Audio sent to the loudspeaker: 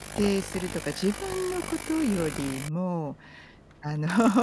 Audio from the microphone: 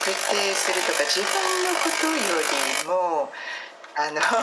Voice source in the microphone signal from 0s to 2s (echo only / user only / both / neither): echo only